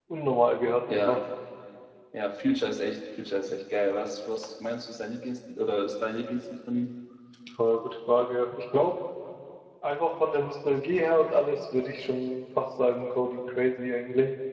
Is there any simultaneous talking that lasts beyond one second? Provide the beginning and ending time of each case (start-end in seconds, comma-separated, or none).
none